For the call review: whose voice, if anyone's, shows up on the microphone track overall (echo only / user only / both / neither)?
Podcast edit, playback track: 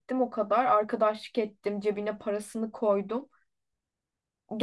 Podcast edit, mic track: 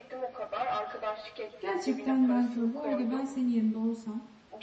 both